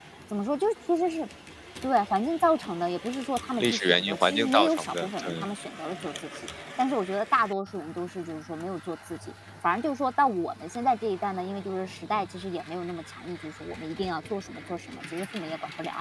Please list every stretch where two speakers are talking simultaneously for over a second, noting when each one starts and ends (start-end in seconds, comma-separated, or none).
3.6-5.5